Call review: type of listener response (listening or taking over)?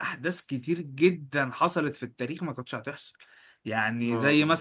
listening